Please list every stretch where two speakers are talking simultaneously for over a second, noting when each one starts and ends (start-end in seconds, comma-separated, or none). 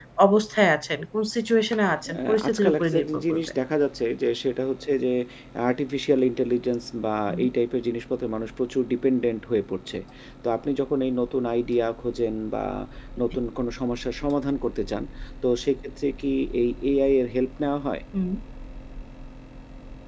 2.2-3.5